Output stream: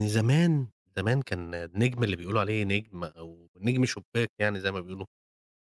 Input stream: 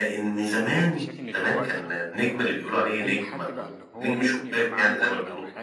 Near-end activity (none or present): present